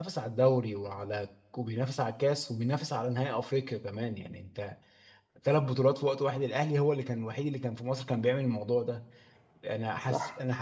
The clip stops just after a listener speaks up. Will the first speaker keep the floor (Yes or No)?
Yes